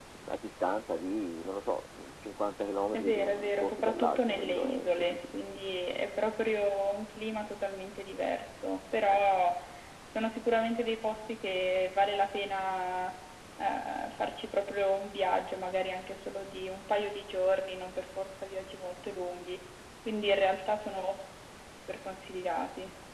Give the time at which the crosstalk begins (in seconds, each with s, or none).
2.9 s